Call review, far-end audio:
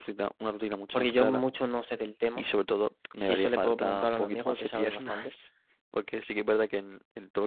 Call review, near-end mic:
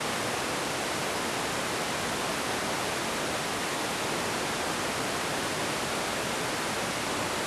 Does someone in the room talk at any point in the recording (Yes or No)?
No